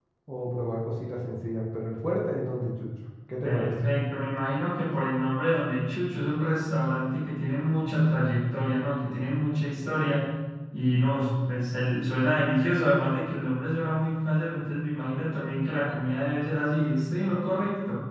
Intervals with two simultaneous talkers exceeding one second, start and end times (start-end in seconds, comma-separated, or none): none